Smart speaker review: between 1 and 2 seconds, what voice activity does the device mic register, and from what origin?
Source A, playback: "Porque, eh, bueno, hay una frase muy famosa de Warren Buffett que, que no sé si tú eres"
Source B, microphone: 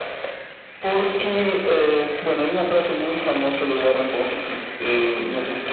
echo only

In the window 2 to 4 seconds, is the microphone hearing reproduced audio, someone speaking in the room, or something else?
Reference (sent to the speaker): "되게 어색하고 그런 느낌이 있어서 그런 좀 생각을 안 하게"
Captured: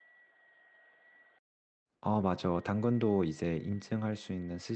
user only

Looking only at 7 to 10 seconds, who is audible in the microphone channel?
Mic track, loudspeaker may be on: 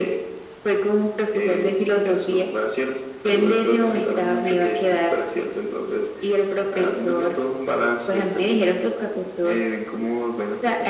echo only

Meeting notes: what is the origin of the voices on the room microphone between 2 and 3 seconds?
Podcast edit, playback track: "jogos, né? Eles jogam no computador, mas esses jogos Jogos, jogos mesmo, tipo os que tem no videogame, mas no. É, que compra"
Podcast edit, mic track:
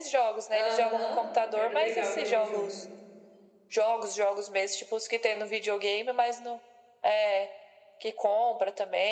both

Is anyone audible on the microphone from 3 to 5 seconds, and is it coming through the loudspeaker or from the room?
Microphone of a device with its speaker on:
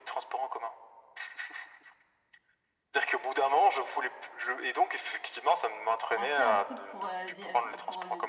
echo only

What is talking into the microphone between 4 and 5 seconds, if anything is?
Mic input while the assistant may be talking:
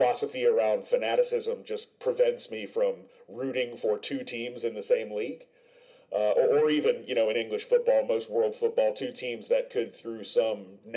echo only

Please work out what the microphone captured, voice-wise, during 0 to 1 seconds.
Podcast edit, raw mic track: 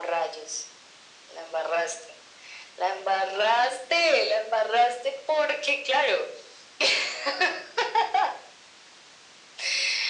echo only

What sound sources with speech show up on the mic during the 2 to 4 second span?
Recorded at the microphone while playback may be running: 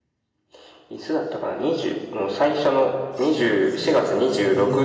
both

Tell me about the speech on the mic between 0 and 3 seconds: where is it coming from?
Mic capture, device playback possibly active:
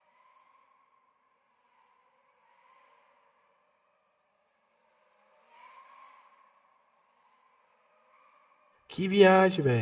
neither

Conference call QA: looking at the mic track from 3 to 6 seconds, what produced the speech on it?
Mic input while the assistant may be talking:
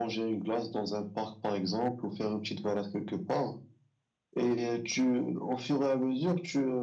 echo only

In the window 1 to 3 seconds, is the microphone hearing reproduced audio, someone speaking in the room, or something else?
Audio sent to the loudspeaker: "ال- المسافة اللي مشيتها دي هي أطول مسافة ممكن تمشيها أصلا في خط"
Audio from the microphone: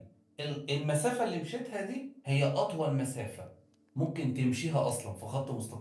echo only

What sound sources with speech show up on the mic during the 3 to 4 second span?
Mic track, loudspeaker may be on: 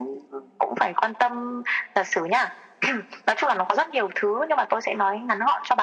echo only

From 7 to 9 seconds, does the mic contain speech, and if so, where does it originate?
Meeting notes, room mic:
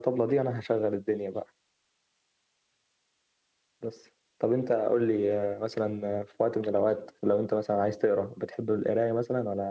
user only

